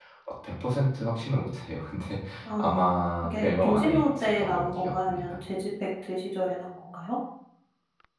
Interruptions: present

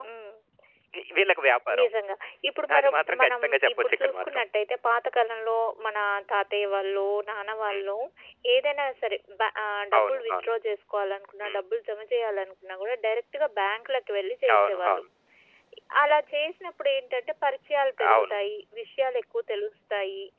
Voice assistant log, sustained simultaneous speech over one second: present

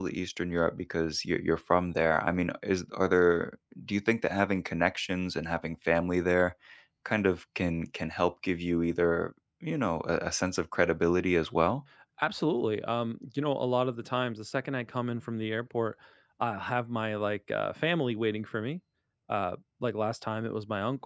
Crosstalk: none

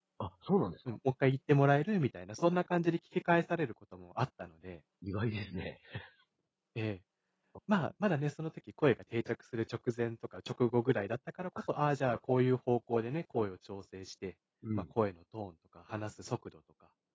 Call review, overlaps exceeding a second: none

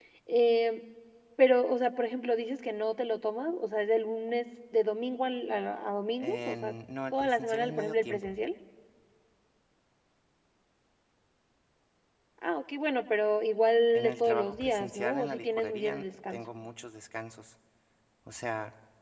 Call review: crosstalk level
present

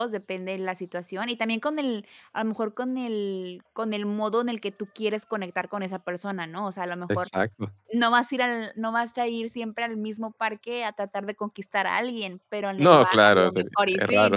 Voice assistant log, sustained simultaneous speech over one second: present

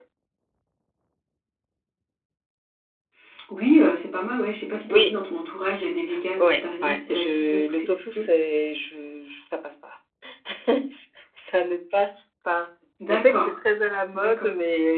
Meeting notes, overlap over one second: present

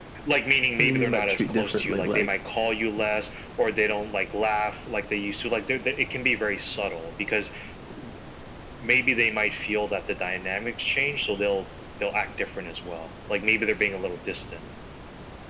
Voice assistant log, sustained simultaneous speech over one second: present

